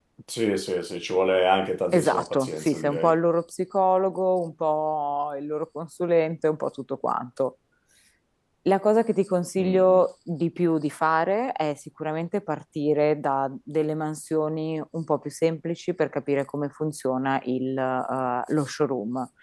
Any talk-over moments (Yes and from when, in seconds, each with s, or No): Yes, from 1.9 s